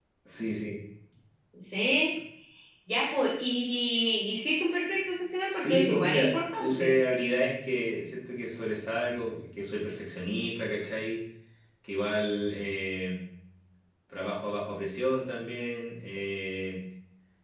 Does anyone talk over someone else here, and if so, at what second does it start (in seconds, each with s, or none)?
5.5 s